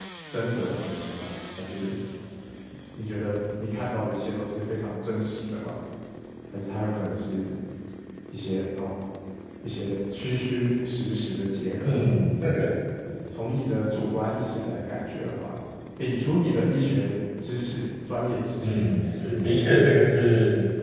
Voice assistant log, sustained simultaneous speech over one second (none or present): none